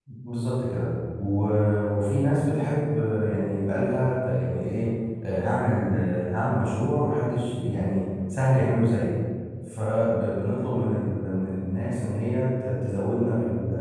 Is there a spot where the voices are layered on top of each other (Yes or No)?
No